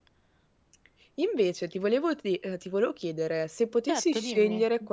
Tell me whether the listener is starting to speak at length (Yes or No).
No